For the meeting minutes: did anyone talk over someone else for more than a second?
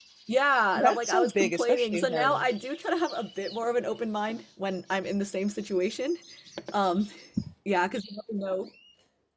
Yes, from 0.8 s

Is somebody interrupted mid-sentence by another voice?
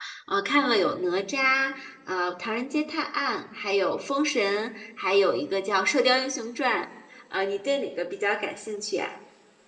No

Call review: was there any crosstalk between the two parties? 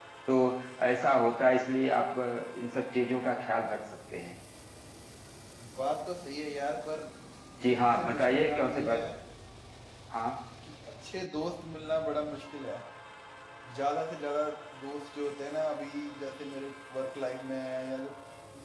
Yes, from 7.7 s

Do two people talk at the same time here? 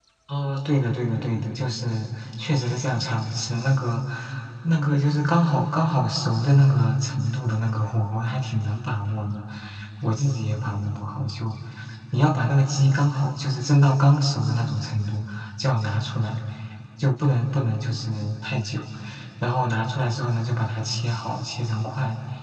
No

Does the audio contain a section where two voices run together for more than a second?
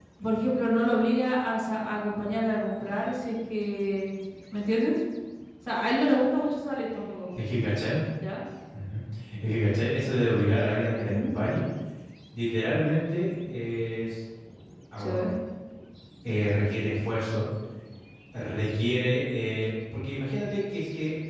No

